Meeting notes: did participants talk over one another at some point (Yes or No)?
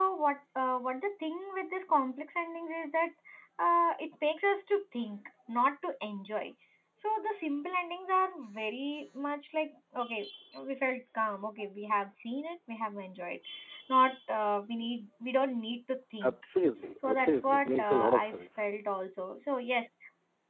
Yes